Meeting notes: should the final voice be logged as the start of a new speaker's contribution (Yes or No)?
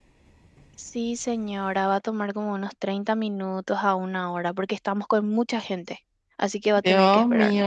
Yes